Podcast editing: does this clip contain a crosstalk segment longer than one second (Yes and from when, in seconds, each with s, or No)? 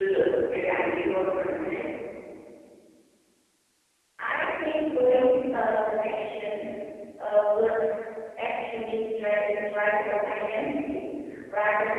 No